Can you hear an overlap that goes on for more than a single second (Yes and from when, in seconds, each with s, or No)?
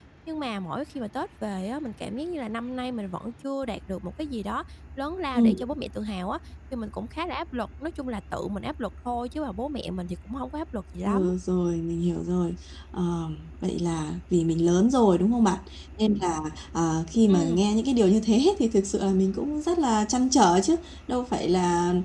No